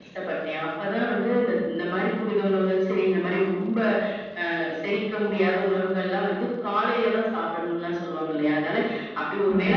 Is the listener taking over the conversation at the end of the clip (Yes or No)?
No